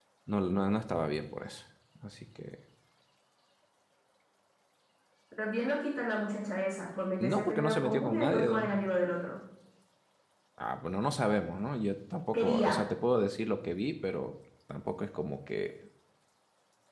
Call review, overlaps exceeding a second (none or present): present